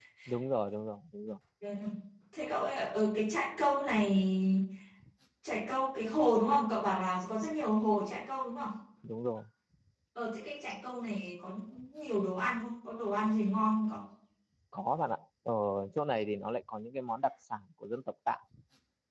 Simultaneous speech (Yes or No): No